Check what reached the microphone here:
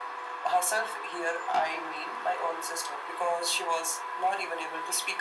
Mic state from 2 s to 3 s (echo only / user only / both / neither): echo only